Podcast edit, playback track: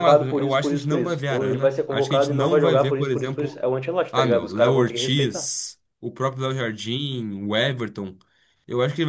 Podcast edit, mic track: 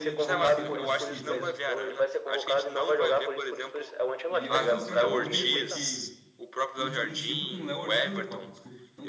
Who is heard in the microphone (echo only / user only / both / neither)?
both